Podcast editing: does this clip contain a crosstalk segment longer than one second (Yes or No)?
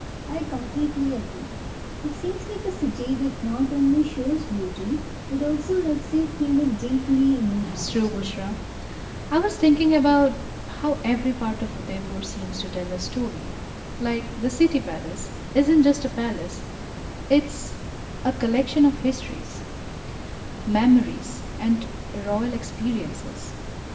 No